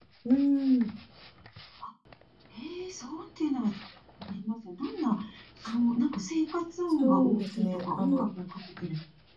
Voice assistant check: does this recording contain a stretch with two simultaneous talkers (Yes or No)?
Yes